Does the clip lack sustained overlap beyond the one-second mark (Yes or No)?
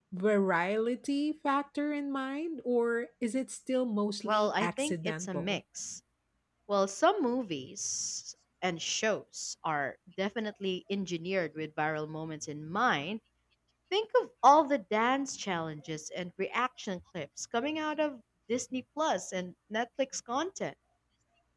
No